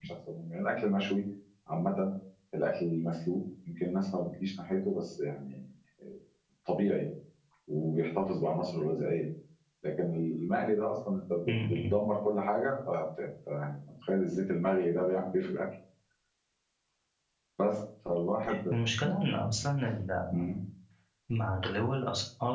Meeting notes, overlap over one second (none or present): none